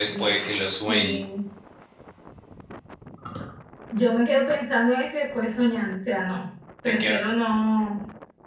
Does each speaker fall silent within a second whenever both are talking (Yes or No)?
Yes